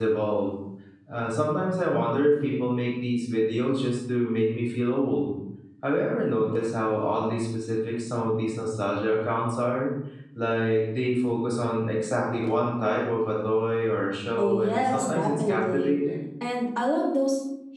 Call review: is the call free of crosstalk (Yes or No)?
No